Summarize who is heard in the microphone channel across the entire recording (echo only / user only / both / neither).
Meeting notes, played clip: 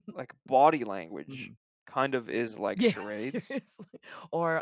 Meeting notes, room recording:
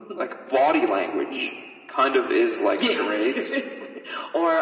echo only